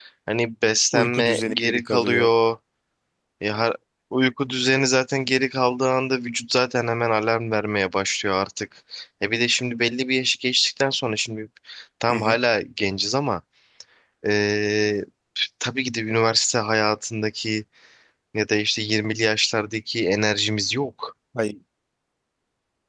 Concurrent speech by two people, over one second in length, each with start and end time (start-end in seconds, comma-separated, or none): 0.9-2.3